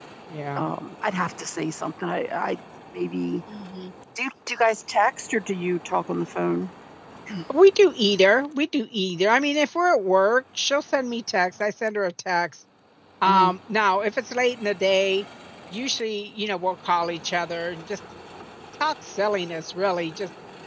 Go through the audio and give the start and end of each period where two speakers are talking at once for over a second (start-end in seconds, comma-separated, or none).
none